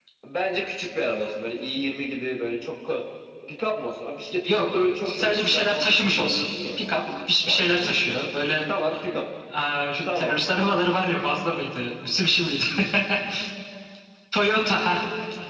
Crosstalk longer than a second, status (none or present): present